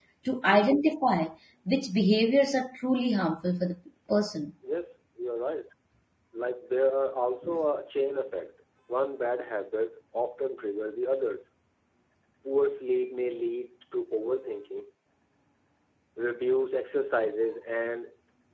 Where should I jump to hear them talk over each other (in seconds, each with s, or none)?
none